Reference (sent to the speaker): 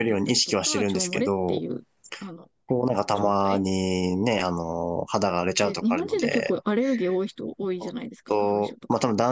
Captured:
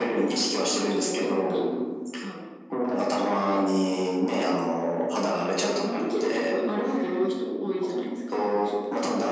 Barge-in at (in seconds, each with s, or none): none